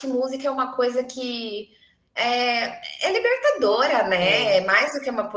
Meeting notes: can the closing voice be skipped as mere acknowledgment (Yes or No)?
Yes